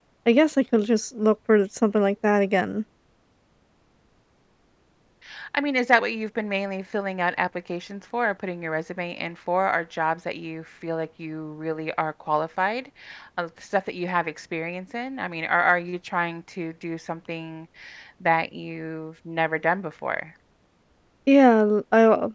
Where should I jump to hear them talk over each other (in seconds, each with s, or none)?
none